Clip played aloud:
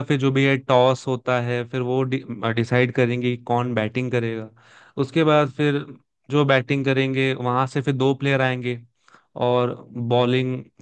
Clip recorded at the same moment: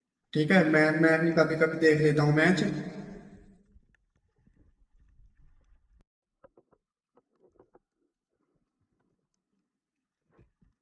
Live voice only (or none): ठीक है मैं मैं भी कभी कभी देख लेता हूँ मैच